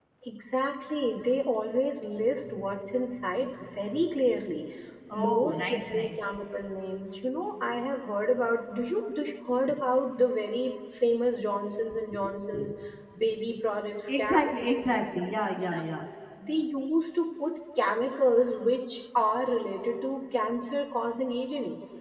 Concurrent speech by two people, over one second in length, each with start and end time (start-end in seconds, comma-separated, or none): 5.1-6.3